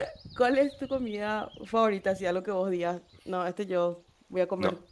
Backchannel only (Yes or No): No